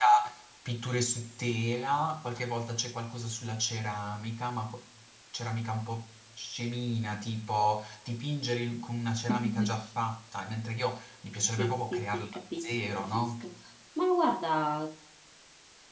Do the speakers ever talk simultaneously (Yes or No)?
Yes